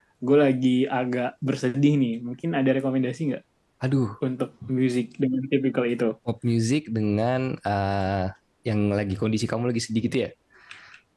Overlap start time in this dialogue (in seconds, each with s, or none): none